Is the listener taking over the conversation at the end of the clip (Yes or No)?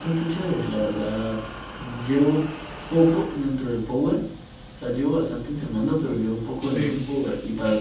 No